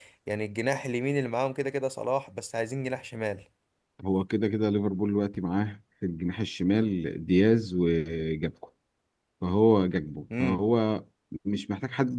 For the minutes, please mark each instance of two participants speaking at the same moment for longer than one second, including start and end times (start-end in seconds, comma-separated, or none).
none